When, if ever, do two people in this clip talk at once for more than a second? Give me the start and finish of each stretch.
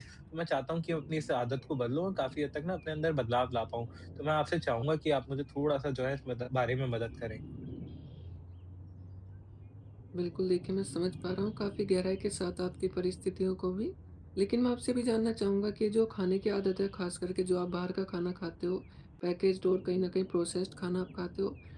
none

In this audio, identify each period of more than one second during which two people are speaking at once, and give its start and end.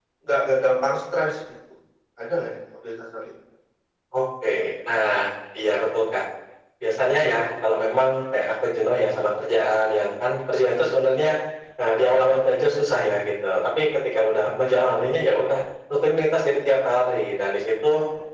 none

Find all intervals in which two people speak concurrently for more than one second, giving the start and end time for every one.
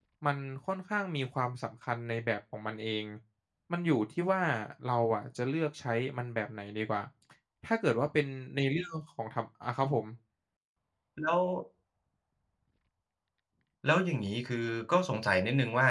none

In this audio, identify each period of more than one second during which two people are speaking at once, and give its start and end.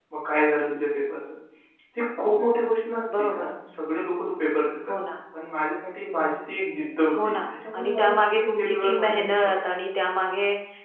7.2-9.6

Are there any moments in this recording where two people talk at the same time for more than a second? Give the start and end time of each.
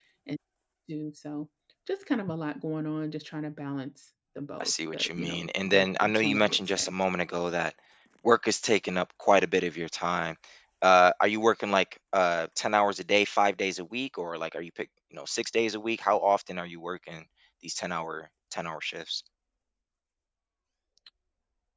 4.6-6.9

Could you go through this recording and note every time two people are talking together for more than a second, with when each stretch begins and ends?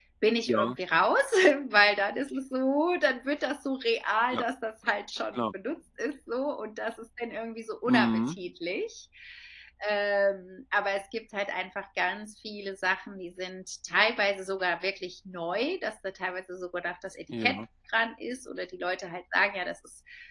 none

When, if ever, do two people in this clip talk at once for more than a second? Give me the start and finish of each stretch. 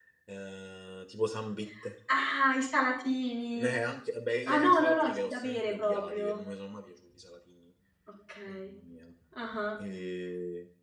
4.5-6.3

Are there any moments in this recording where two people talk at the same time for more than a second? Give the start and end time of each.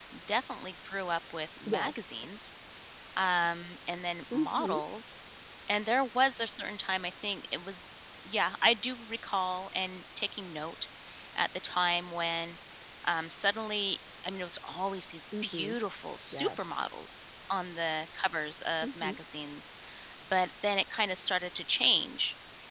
none

